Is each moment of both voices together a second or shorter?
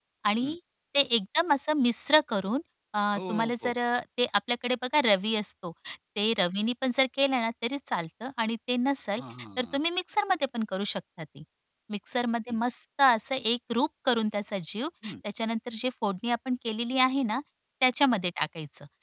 Yes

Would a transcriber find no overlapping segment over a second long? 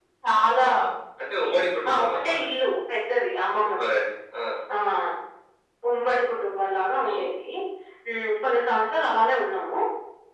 Yes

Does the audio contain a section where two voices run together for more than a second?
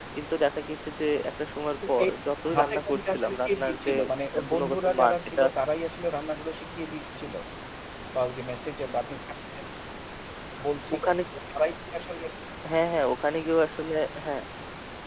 Yes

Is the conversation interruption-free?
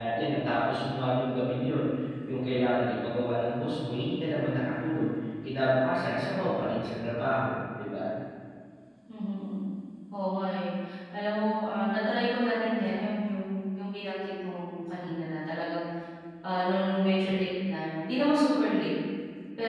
Yes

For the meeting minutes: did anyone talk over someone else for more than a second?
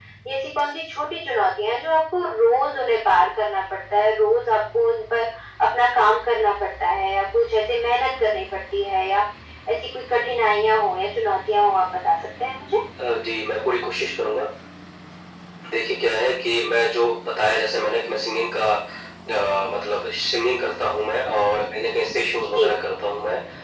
No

